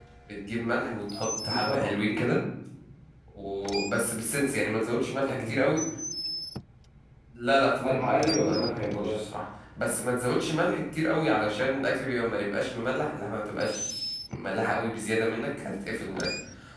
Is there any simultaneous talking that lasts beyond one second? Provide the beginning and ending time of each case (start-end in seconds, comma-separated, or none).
7.8-9.2